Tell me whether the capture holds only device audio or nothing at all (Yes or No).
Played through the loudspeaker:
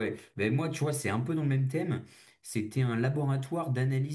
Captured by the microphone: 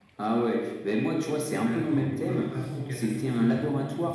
No